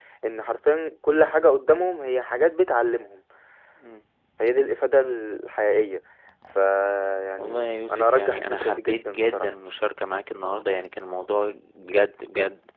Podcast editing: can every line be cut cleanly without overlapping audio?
No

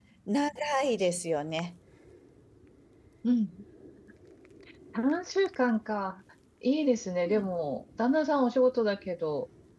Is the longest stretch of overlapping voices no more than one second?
Yes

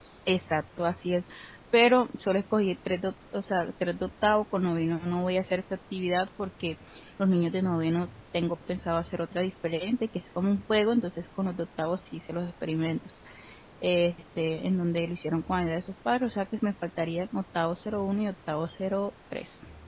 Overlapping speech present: No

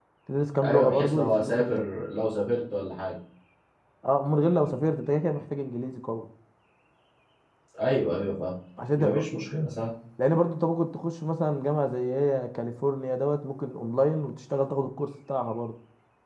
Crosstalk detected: Yes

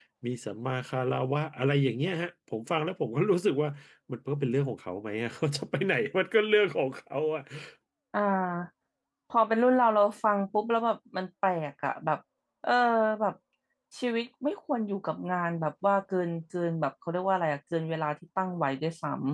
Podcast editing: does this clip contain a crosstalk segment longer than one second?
No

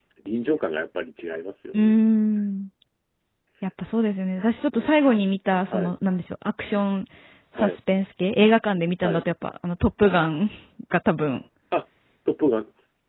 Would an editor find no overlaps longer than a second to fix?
Yes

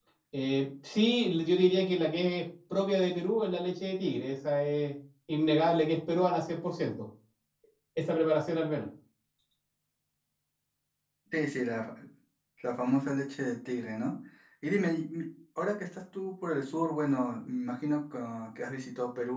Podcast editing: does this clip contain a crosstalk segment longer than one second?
No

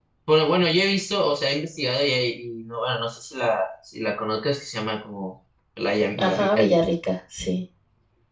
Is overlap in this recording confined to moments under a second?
Yes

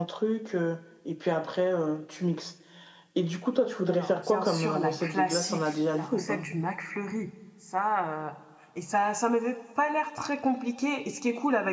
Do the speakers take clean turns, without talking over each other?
No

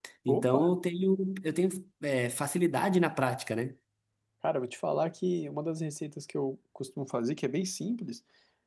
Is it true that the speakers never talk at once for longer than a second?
Yes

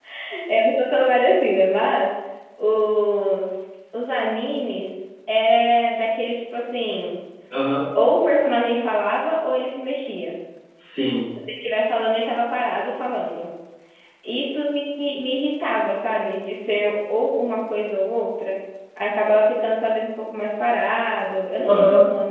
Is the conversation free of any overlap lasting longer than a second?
Yes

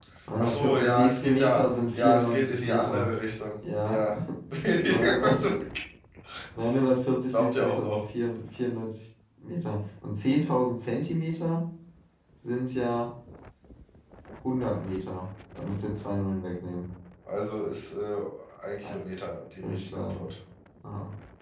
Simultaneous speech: Yes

